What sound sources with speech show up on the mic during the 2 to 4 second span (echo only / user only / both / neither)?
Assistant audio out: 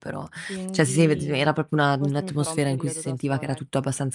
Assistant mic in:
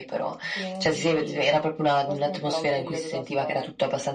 echo only